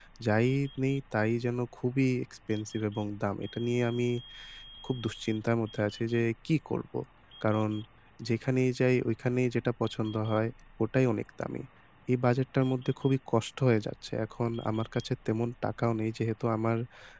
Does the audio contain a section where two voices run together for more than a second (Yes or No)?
No